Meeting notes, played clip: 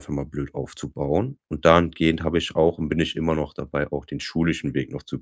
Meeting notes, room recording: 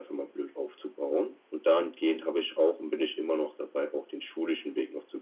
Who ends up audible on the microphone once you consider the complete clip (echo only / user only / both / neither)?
echo only